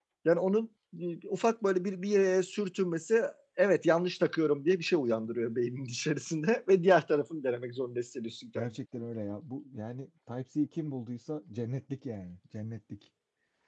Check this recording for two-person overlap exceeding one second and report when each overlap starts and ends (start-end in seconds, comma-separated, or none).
none